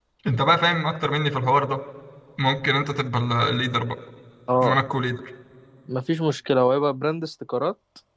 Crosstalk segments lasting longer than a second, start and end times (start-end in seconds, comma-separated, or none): none